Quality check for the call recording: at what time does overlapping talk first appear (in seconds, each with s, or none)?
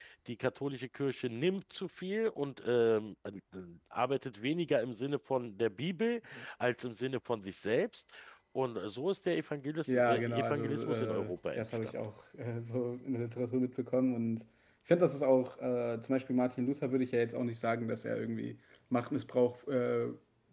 9.9 s